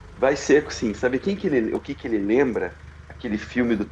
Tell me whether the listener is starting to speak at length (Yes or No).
No